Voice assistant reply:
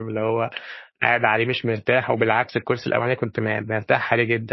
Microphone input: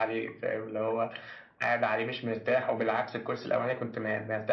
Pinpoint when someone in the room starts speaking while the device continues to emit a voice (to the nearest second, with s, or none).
none